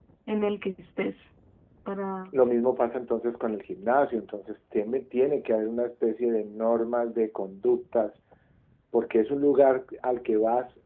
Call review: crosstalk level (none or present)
none